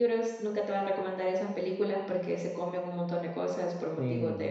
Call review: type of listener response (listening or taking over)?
taking over